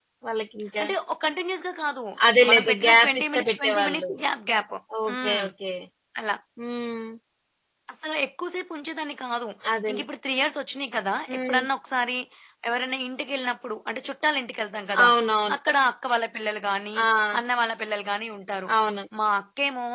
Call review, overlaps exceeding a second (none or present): present